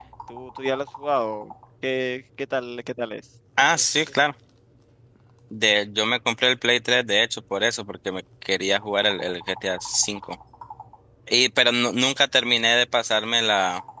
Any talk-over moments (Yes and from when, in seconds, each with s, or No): No